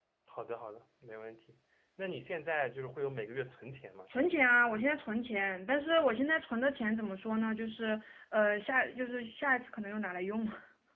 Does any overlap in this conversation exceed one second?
No

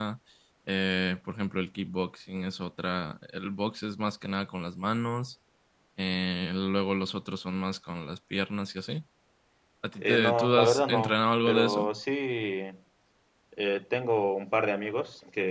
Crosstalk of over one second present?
Yes, from 10.0 s

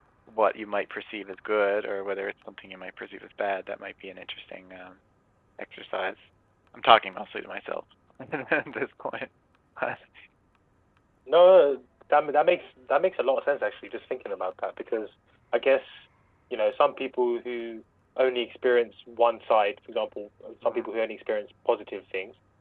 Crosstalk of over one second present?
No

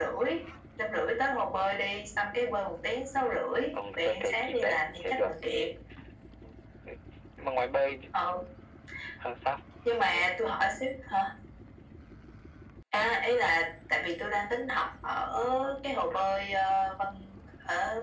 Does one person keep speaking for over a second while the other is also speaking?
Yes, from 3.7 s

